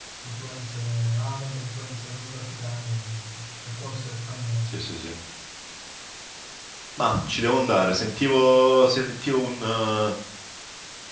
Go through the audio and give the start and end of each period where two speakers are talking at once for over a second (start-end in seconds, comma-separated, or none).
none